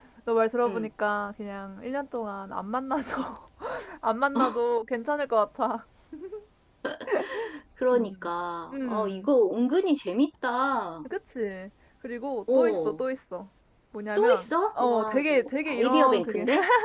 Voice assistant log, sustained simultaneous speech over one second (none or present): present